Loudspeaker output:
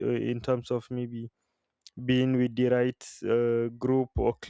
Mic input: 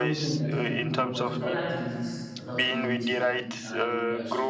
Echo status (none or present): present